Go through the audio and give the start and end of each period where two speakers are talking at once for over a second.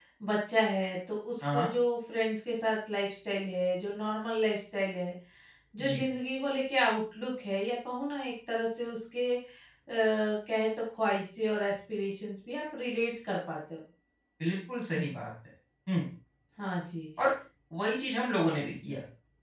none

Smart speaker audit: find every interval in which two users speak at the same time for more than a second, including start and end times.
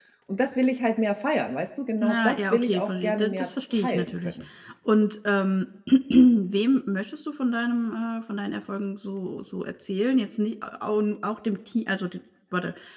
2.0-4.3

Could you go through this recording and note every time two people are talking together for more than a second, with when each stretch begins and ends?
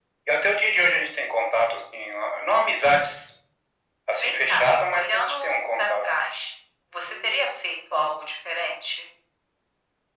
4.2-6.0

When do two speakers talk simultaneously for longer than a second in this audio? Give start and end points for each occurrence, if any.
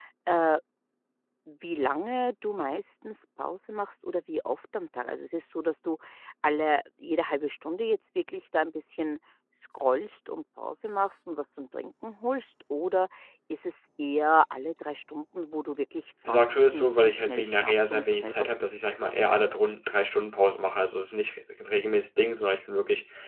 16.3-18.8

